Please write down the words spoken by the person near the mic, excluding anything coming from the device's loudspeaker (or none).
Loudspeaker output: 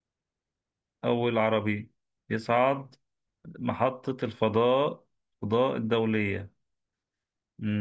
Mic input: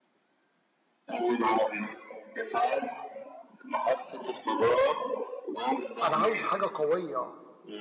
انا عاوز حاجه قويه